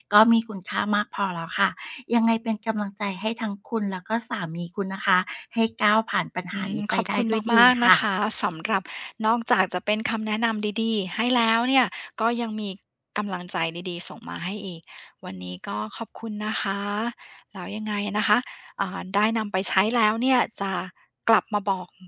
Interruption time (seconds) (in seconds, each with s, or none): 6.5 s